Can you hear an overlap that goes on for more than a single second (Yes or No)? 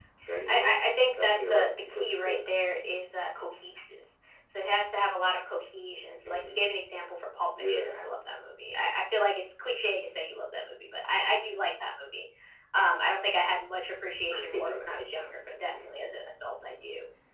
Yes